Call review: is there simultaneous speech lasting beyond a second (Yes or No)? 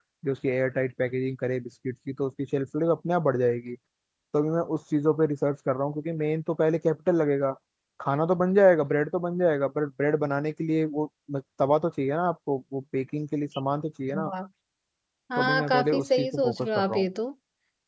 Yes